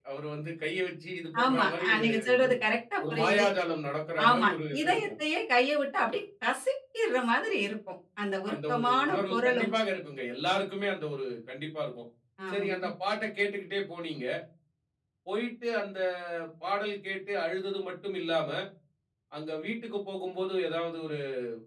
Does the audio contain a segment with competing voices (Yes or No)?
Yes